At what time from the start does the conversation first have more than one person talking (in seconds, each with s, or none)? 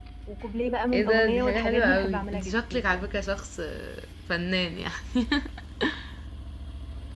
0.9 s